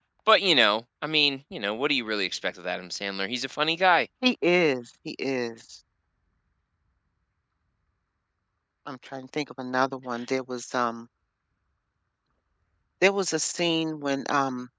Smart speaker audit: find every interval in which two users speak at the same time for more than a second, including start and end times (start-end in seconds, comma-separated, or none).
none